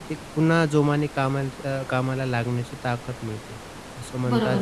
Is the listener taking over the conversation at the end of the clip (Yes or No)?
Yes